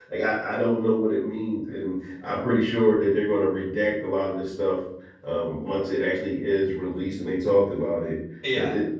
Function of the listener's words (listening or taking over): listening